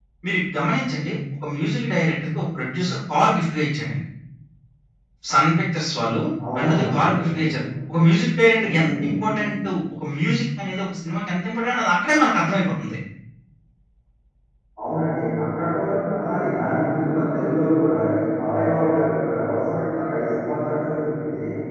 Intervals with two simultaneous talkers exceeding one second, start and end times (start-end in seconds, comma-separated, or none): none